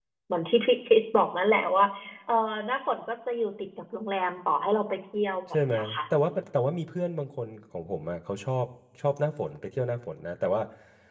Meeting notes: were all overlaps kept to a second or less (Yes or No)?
Yes